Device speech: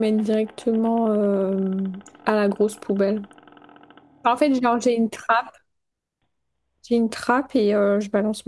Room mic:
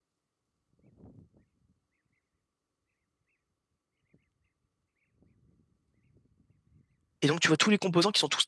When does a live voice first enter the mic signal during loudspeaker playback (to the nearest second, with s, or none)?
7 s